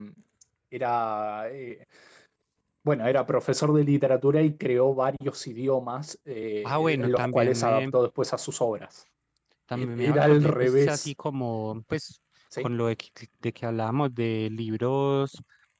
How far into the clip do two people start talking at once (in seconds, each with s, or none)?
6.6 s